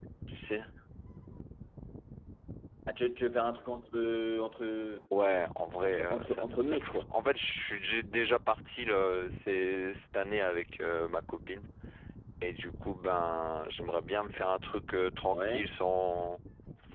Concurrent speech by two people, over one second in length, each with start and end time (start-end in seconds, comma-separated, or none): 5.8-7.0